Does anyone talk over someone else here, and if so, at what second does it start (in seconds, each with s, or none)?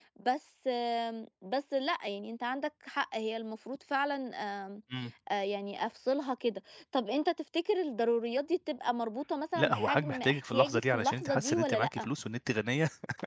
9.6 s